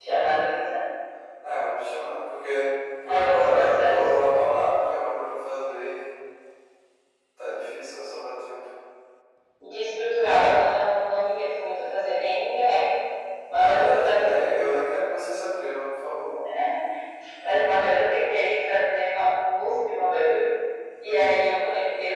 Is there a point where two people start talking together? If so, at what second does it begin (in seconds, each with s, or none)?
3.1 s